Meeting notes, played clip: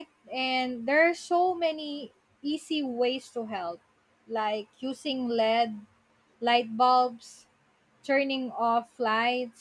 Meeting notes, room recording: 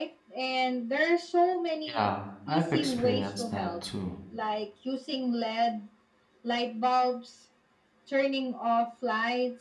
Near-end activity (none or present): present